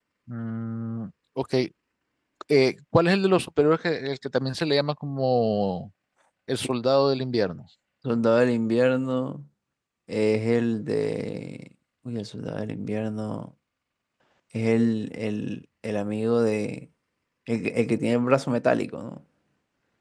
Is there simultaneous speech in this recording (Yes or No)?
No